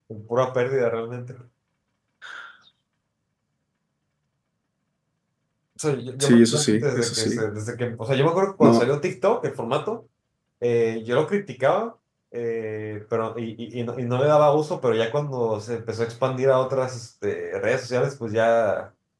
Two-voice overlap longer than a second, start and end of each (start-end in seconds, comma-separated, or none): 6.2-7.4